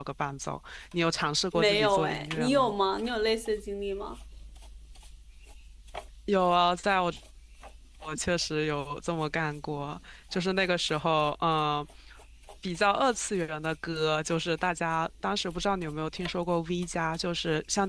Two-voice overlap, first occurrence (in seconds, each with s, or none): 1.5 s